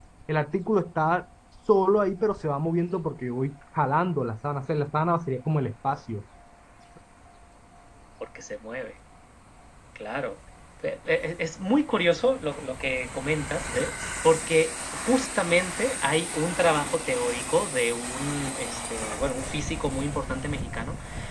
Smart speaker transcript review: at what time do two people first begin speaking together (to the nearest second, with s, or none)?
none